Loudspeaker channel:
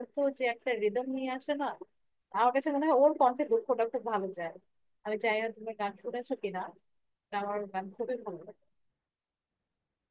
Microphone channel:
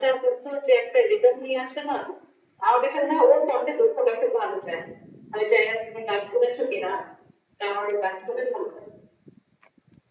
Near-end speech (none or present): none